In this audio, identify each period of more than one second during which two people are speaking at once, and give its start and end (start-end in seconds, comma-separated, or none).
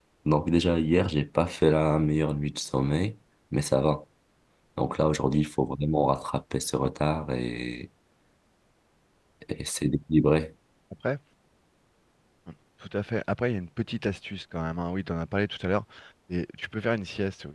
none